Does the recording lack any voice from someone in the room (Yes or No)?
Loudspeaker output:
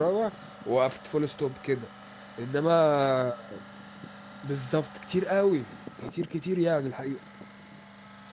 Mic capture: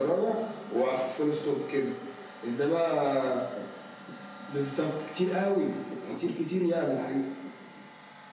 Yes